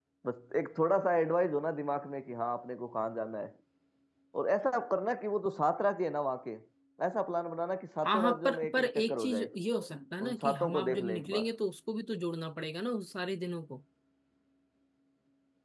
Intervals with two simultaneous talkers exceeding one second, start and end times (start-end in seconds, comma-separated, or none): 8.0-9.5, 10.2-11.5